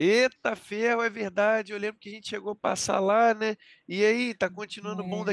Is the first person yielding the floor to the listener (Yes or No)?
Yes